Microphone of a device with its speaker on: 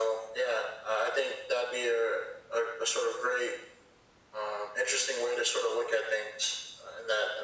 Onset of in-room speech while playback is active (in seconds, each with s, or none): none